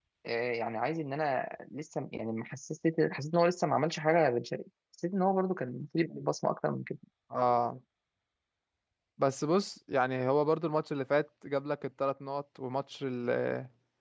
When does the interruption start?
none

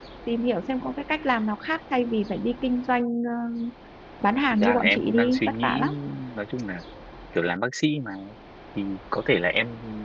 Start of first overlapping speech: 4.6 s

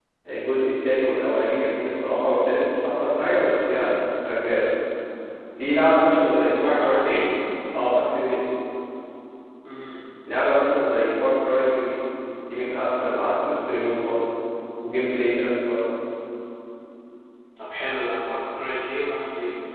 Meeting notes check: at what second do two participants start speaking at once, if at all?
6.0 s

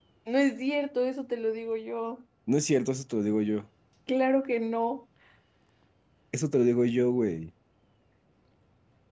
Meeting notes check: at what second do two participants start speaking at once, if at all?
none

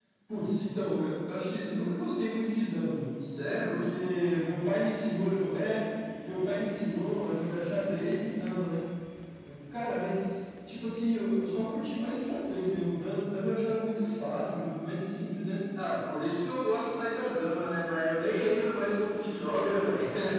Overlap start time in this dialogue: none

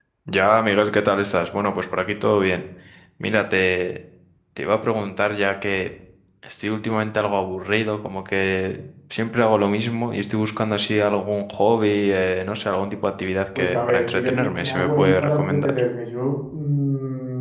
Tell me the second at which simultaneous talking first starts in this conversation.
13.6 s

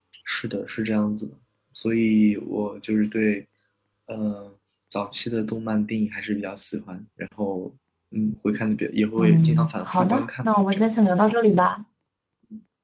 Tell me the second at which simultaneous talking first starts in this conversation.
9.2 s

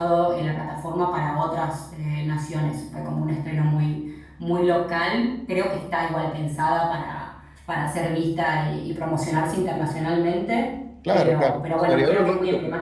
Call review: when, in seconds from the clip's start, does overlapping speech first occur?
11.1 s

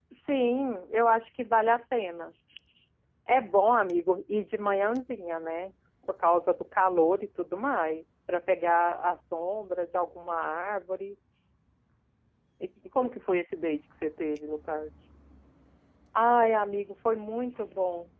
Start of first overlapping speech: none

